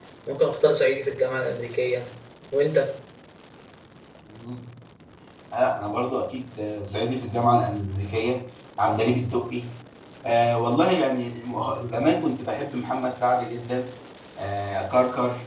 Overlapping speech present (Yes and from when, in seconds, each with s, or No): No